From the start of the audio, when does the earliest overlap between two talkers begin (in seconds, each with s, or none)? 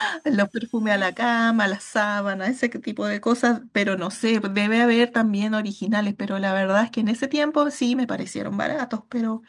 none